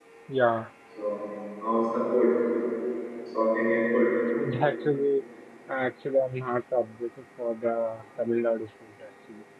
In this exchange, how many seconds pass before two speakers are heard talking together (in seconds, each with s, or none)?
none